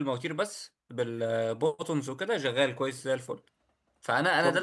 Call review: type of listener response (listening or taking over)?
listening